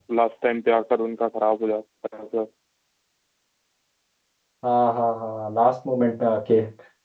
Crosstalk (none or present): none